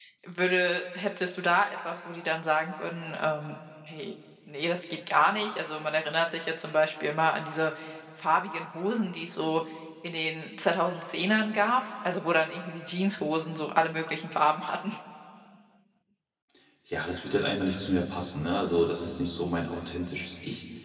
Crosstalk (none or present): none